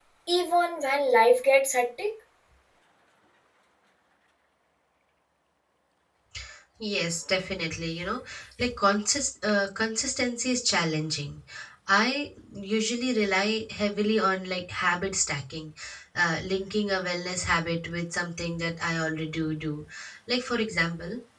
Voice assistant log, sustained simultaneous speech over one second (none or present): none